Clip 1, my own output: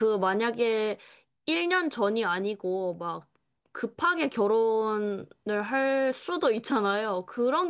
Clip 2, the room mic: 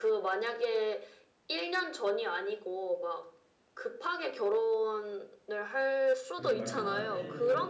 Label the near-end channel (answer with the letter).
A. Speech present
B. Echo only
A